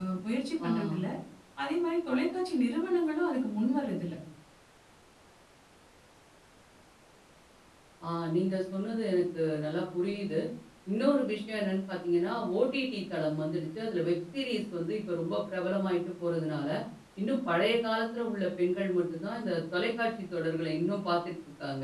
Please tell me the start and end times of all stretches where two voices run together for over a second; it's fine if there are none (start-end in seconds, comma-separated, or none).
none